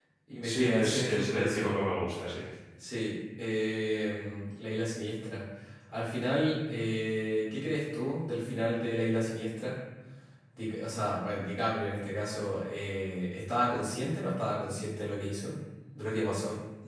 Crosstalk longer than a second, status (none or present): present